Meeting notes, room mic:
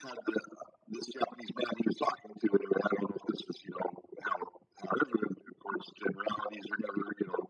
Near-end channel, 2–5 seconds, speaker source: echo only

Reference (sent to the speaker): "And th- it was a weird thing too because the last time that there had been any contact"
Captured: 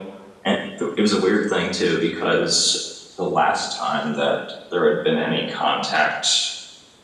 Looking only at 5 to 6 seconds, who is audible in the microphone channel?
echo only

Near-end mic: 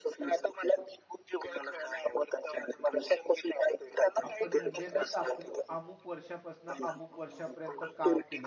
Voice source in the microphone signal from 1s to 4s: echo only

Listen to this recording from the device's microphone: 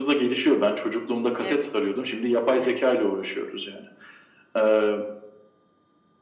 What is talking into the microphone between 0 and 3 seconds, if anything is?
both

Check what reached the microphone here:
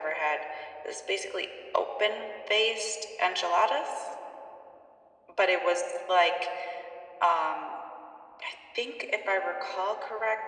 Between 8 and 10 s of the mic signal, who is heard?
echo only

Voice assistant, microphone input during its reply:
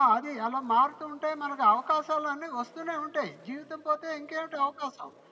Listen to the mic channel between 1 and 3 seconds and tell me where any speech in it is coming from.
echo only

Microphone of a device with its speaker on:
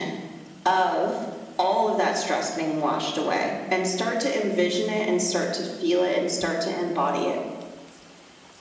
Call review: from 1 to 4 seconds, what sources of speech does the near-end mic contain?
echo only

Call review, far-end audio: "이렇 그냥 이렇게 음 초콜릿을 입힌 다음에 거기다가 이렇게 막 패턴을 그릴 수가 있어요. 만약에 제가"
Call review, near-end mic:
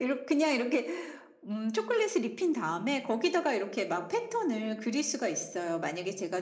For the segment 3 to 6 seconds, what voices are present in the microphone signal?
echo only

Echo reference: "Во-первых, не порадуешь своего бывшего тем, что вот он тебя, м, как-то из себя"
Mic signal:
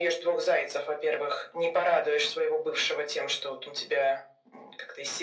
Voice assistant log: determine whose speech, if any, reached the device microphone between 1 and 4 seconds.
echo only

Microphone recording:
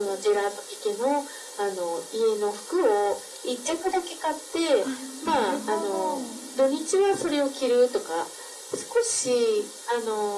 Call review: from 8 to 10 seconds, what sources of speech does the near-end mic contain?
echo only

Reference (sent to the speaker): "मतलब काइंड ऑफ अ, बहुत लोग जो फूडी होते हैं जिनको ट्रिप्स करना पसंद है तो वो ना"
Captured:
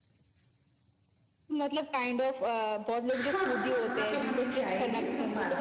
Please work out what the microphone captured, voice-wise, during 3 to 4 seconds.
both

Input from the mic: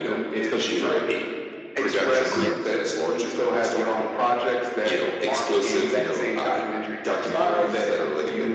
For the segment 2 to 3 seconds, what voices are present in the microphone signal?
both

